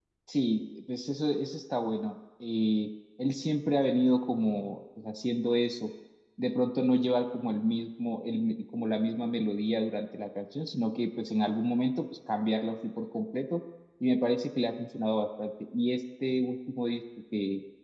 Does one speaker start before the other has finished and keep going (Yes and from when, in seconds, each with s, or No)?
No